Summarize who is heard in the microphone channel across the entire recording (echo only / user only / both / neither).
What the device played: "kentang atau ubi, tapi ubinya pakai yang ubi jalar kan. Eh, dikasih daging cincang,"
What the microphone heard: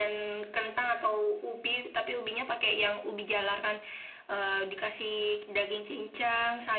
echo only